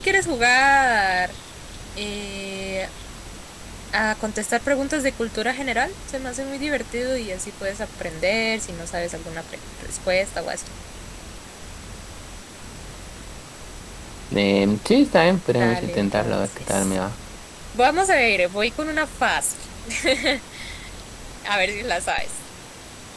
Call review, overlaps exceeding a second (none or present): present